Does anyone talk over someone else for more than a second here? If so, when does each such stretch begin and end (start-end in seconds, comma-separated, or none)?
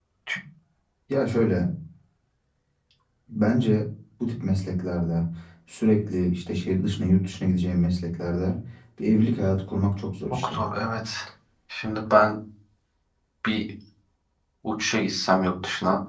none